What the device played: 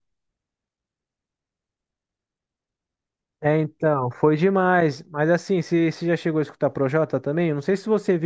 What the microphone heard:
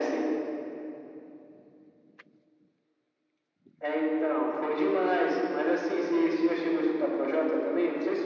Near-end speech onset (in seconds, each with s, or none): none